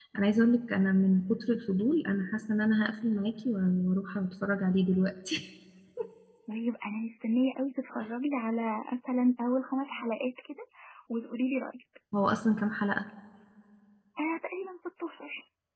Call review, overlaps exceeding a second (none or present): none